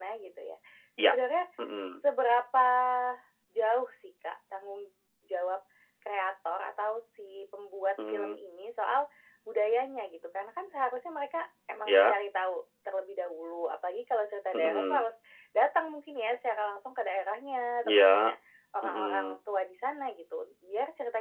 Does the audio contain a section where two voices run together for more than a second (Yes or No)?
No